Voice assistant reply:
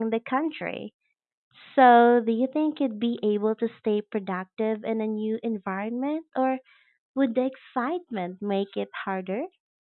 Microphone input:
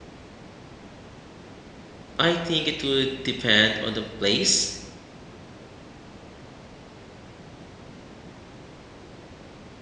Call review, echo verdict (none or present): none